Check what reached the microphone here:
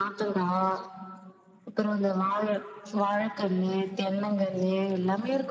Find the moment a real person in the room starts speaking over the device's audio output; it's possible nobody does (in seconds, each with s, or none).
none